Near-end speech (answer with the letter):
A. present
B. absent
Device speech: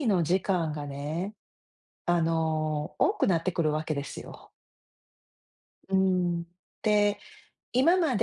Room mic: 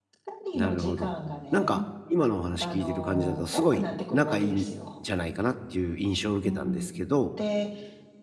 A